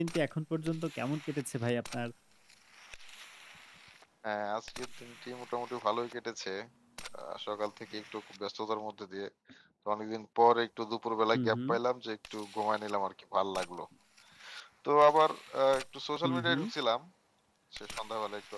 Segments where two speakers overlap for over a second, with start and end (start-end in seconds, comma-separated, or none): none